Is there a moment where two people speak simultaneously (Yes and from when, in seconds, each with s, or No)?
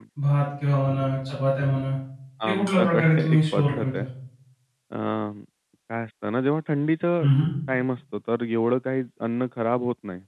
Yes, from 2.5 s